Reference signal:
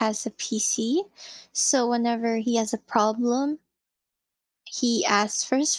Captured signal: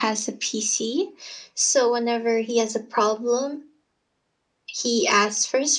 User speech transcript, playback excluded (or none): none